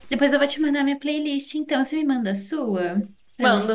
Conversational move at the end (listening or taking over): taking over